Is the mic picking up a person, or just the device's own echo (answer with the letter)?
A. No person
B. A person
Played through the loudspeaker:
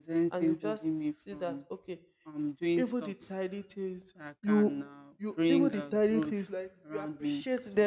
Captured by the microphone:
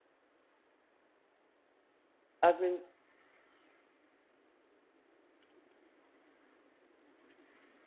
B